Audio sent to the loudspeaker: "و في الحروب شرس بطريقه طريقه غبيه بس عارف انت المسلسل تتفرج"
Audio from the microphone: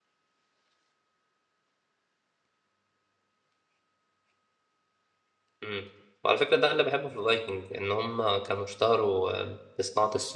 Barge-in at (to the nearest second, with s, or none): 6 s